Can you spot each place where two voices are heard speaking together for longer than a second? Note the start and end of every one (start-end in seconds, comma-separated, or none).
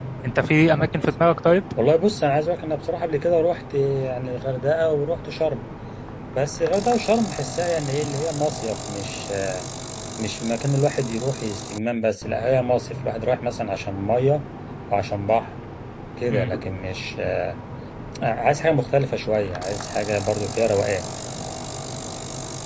none